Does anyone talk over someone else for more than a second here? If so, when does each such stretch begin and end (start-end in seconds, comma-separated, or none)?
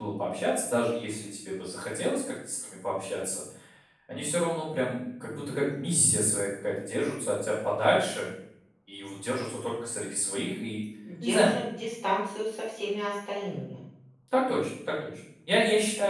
none